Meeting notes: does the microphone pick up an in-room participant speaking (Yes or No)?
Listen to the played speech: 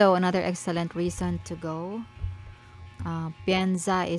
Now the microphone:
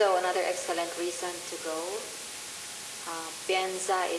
No